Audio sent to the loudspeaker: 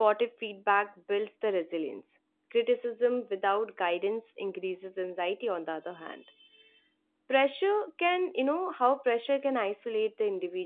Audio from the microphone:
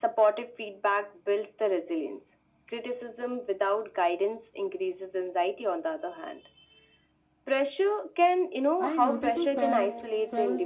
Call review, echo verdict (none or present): present